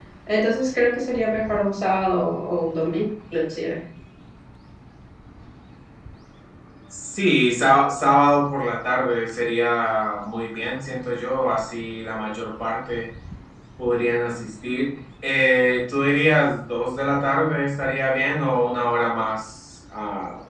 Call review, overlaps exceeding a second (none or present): none